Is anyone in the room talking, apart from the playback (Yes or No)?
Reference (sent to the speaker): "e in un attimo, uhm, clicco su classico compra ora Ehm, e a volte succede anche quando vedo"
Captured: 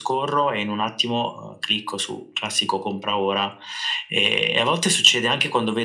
No